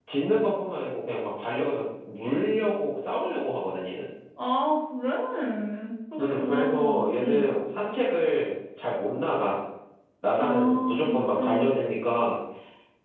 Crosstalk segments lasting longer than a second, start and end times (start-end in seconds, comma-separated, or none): 6.2-7.4, 10.4-11.8